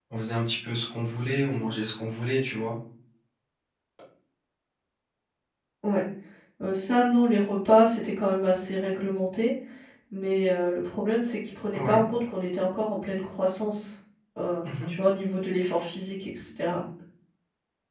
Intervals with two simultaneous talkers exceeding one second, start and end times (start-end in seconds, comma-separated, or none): none